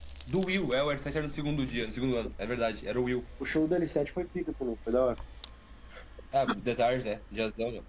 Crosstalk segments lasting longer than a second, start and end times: none

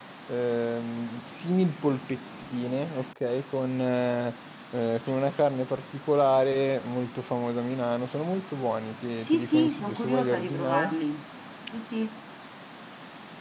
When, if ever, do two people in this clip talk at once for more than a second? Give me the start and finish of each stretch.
9.2-10.9

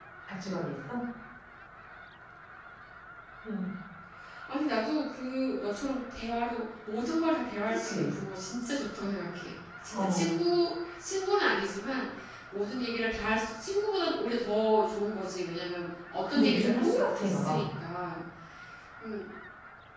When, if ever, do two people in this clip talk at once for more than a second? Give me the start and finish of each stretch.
16.3-17.6

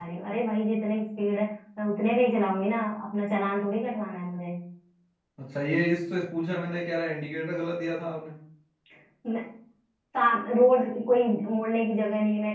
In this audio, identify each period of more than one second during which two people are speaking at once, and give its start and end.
none

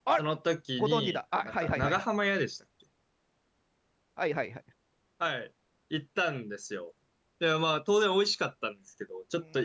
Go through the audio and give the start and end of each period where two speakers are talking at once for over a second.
0.8-2.0

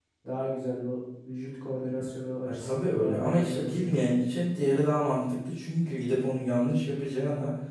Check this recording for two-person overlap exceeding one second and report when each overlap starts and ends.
2.4-3.9

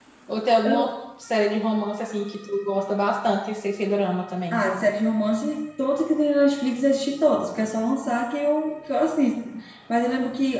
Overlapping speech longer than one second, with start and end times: none

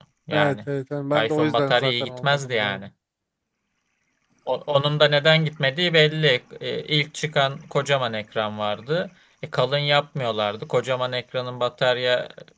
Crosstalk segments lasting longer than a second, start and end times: 1.2-2.8

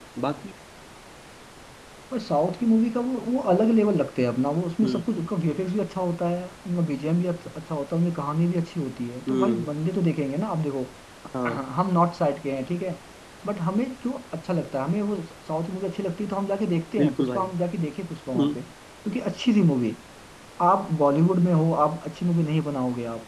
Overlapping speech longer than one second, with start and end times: none

